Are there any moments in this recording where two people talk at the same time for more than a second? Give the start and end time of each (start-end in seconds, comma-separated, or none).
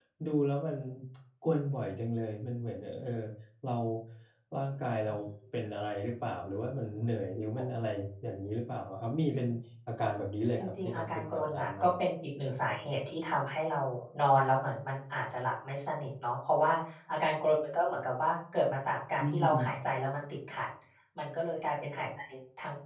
10.6-11.9